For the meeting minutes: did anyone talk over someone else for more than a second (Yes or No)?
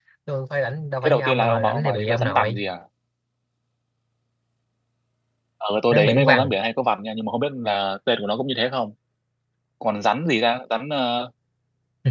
Yes